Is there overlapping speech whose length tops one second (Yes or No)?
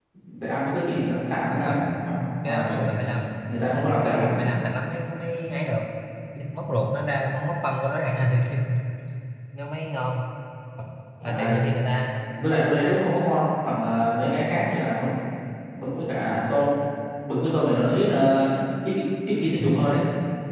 No